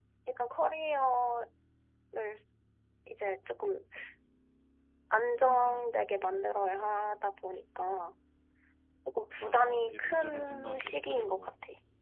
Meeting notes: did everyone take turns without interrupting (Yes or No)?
No